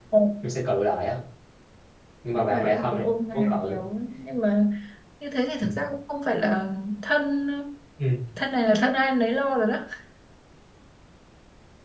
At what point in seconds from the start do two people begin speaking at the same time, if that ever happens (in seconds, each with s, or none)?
2.4 s